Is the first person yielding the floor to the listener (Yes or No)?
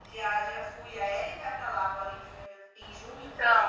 Yes